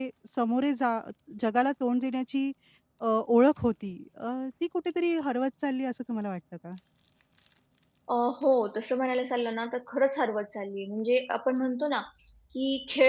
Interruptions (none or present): none